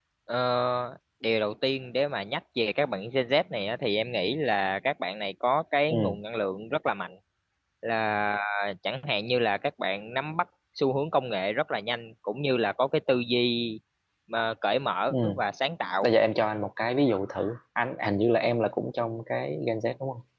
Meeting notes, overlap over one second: none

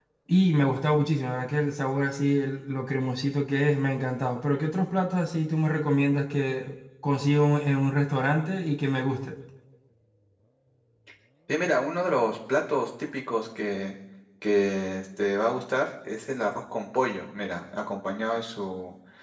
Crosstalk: none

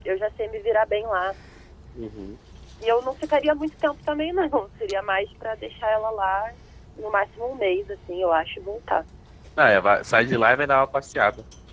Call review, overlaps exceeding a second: none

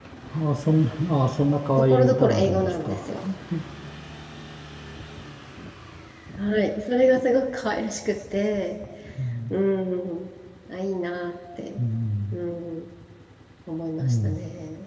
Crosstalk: present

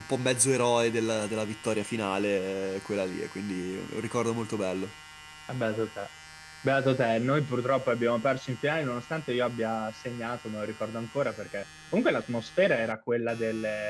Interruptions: none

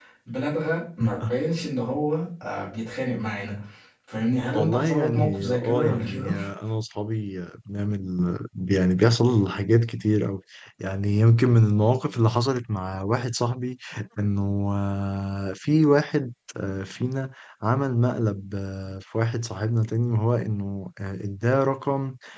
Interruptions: present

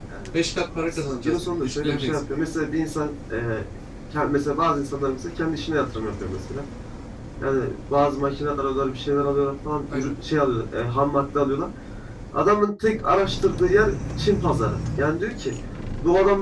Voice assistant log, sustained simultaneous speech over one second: present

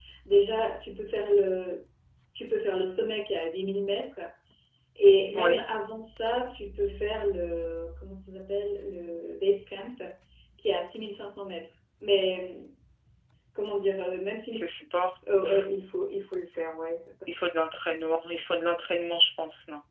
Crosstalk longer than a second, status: none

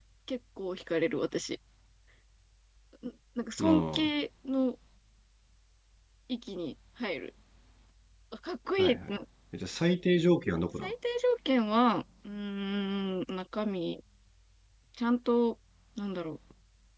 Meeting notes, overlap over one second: none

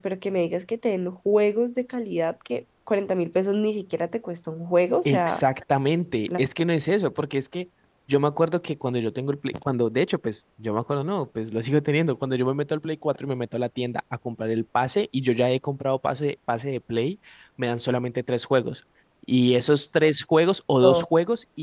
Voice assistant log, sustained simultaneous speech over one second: none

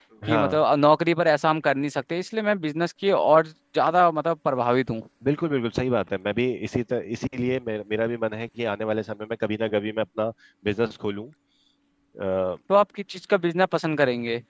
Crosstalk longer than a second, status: none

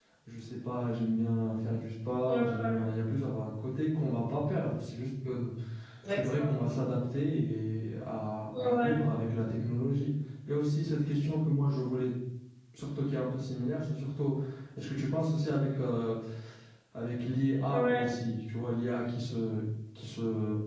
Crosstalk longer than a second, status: none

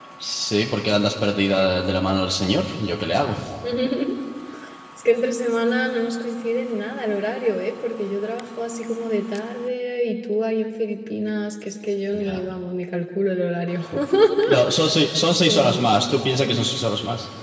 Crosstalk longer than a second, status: none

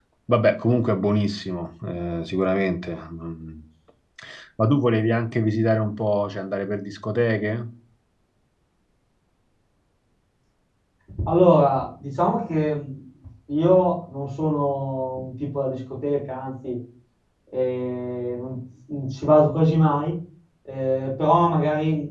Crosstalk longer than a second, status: none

